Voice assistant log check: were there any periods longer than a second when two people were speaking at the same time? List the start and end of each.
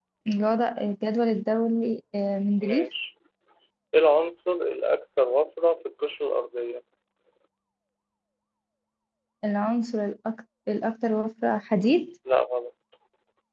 none

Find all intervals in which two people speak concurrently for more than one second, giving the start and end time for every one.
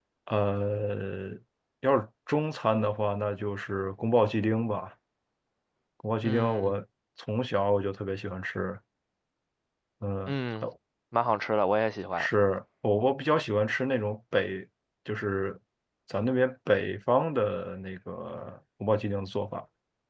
none

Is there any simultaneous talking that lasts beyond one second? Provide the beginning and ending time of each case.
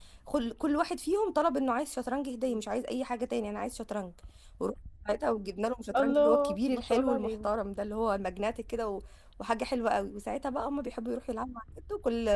6.0-7.5

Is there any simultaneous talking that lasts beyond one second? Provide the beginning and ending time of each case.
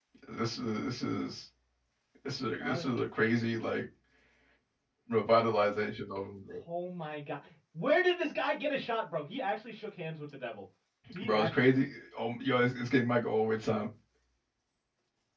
none

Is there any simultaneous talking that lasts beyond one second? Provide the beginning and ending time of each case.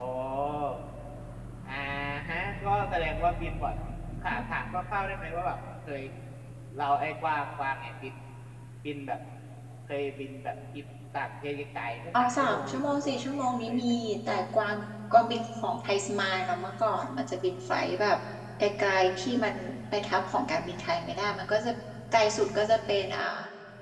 12.2-13.8

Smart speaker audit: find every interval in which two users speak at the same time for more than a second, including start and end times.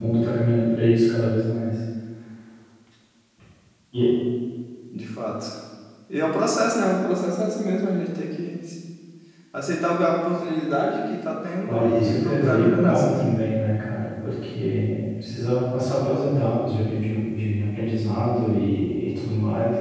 11.7-13.4

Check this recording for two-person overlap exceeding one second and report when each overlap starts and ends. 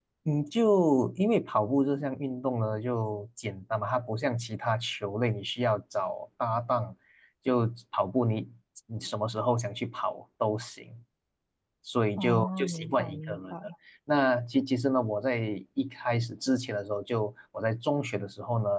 12.2-13.6

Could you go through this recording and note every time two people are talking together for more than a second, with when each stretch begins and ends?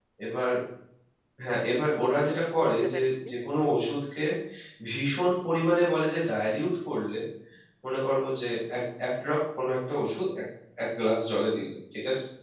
2.1-3.7

